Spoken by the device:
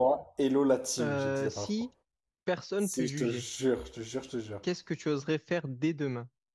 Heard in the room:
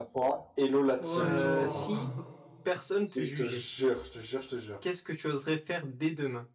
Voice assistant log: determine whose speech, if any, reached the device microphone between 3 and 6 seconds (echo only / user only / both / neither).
echo only